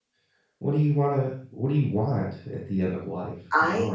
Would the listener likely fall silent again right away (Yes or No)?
Yes